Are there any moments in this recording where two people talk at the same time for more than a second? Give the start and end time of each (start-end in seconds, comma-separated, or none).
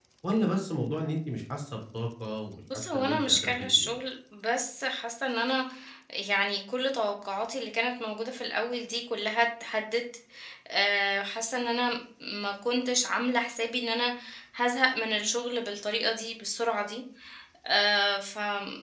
2.7-4.0